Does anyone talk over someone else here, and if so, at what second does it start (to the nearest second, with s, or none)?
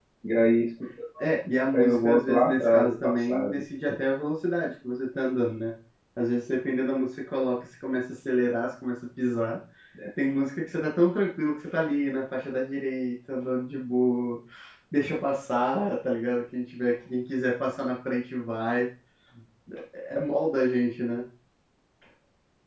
2 s